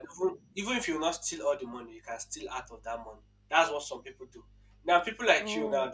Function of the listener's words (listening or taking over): listening